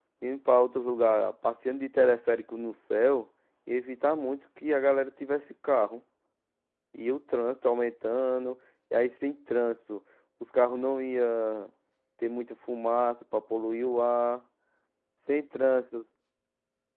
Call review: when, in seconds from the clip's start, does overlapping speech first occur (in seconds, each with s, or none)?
none